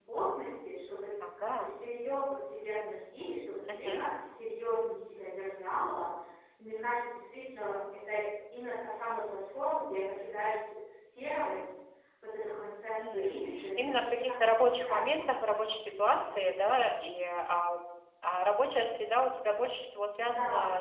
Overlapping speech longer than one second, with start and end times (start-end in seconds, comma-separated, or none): 13.0-15.1